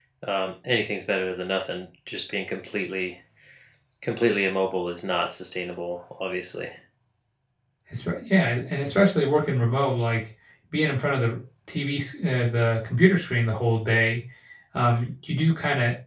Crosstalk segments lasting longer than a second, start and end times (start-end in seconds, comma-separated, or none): none